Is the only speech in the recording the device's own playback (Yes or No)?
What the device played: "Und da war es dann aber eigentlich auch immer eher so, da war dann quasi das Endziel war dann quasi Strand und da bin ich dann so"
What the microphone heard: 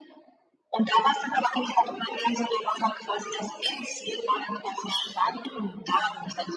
No